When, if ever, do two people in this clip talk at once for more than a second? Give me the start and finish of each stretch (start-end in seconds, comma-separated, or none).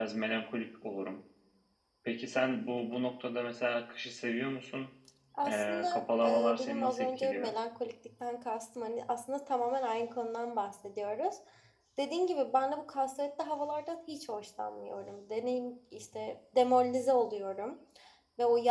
5.5-7.5